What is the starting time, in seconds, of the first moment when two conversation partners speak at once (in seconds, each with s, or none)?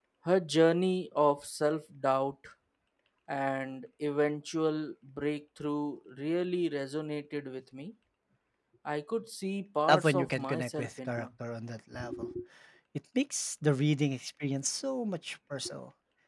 9.9 s